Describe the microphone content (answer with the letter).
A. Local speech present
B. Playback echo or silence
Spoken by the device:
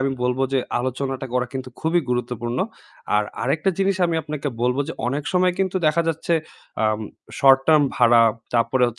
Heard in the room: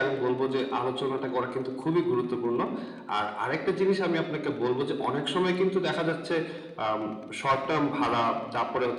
B